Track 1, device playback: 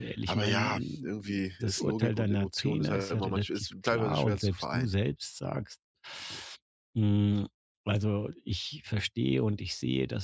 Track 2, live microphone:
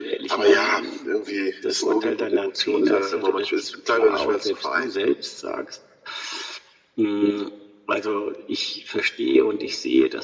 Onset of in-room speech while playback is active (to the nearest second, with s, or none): none